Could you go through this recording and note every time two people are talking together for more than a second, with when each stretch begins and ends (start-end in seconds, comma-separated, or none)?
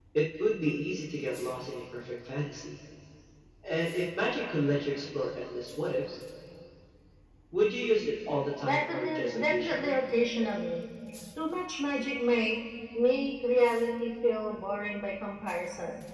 8.6-10.0